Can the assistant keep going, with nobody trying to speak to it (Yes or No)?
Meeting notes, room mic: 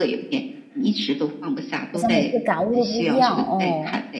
No